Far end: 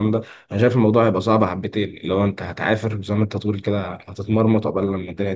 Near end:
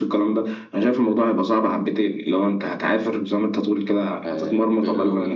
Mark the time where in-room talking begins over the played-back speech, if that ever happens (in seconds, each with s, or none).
4.2 s